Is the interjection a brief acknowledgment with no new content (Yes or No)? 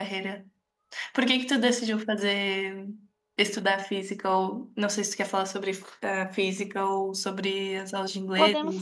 No